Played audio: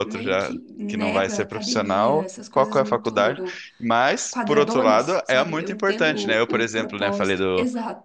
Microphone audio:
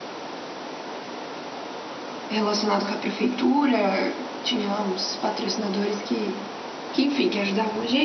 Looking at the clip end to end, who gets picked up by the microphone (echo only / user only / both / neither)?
user only